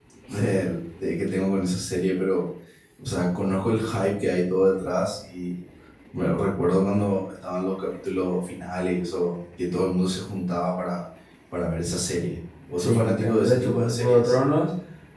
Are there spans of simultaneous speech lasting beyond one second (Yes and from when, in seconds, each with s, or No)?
Yes, from 12.8 s